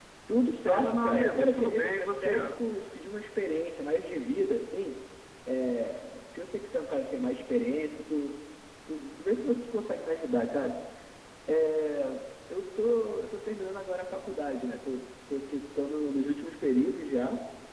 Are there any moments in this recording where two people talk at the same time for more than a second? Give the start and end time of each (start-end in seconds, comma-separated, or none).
0.7-2.3